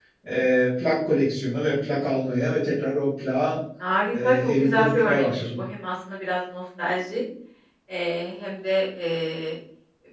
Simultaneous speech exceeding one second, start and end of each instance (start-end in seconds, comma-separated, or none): 4.1-5.6